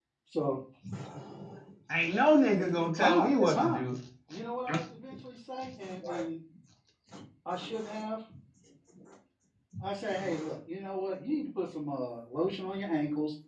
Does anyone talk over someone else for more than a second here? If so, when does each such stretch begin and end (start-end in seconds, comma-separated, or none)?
2.5-3.8